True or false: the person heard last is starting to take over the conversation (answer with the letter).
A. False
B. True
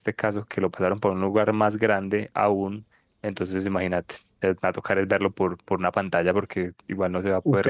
B